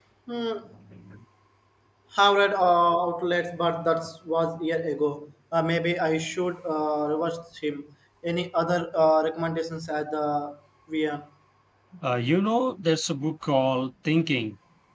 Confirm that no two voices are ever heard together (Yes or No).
Yes